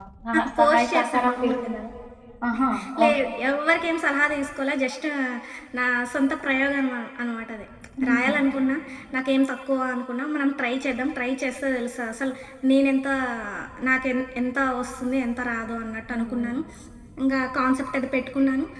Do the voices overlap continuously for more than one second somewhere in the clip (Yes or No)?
Yes